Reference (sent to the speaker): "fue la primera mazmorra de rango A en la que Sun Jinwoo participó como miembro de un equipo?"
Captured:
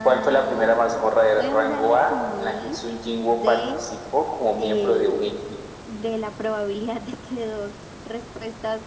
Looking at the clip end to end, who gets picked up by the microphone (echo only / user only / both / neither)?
both